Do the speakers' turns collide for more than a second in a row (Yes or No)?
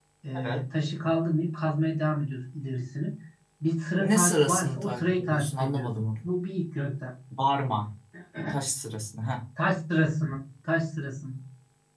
Yes